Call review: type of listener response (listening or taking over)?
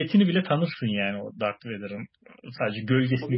listening